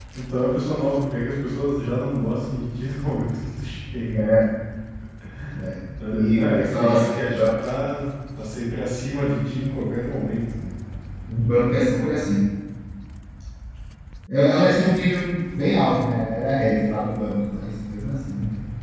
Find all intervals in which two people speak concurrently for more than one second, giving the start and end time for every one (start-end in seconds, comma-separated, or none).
6.1-7.5